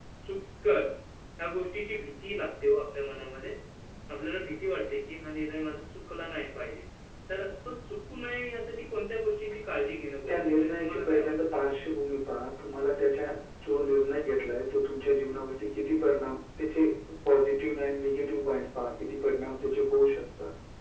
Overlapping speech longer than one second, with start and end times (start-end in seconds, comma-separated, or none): 10.3-11.6